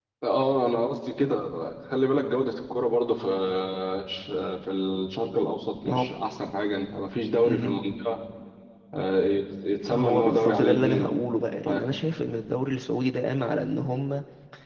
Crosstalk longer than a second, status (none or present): present